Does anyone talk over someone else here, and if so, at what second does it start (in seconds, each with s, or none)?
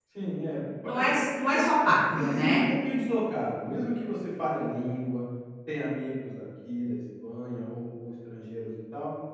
0.8 s